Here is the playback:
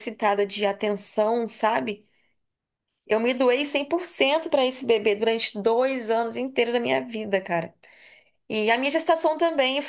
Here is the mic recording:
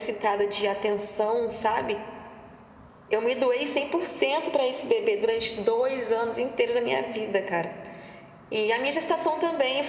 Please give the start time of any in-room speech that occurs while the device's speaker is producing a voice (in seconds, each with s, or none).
none